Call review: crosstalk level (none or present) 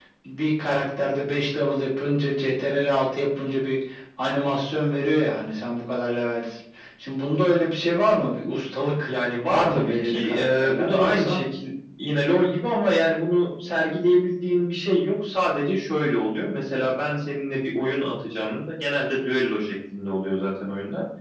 present